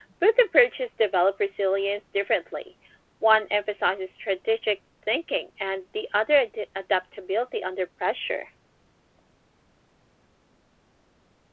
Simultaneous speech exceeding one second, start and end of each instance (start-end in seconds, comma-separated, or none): none